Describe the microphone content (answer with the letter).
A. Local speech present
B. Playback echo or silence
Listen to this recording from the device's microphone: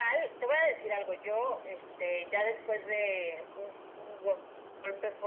B